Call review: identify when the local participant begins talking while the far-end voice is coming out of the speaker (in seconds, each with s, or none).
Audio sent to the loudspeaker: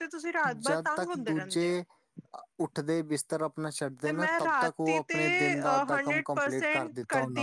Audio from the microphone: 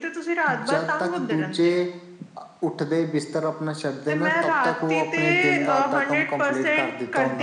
none